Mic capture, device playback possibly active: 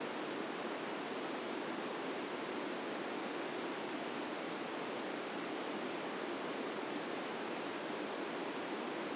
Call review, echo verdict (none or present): none